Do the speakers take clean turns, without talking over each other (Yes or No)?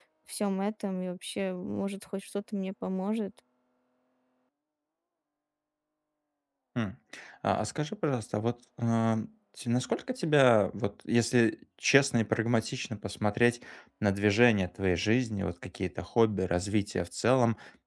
Yes